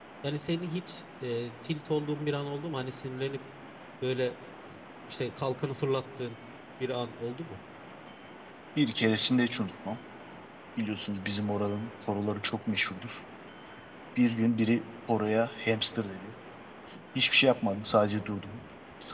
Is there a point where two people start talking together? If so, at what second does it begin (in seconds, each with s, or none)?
none